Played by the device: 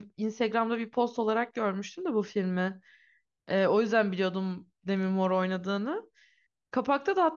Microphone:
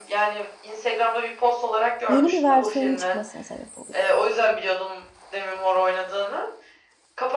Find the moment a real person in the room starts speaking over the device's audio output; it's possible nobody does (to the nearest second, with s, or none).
2 s